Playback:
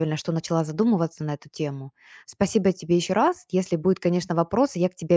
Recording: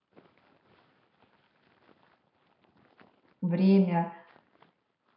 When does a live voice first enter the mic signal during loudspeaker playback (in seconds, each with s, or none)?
3.4 s